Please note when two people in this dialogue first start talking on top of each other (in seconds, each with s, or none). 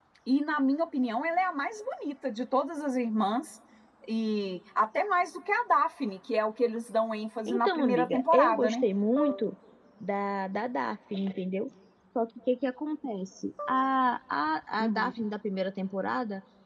7.5 s